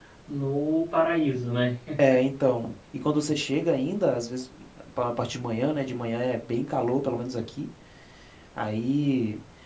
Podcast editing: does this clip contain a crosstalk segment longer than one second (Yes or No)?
No